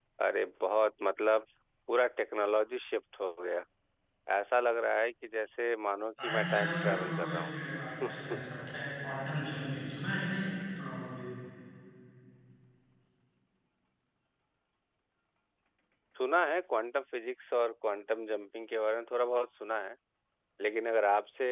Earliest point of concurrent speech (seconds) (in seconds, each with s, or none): 6.2 s